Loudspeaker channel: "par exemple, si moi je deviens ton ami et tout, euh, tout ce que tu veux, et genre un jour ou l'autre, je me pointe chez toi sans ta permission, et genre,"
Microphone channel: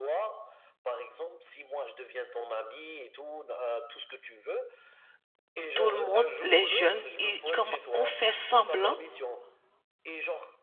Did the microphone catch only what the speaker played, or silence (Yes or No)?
No